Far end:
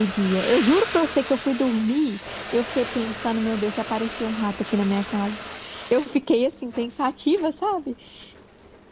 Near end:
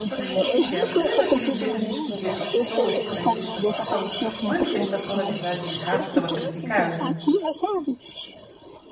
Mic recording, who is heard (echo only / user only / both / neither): both